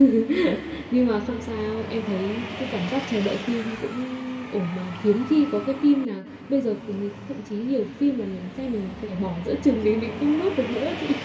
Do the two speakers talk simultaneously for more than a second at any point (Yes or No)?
No